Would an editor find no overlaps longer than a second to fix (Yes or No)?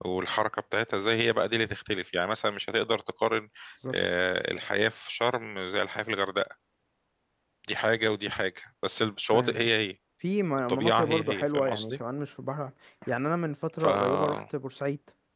No